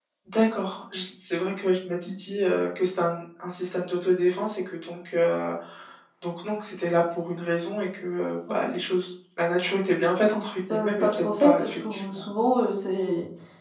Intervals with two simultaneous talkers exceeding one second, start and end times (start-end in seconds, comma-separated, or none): 10.7-12.0